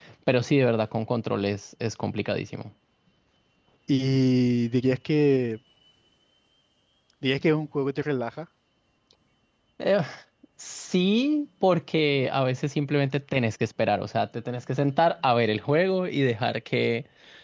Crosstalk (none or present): none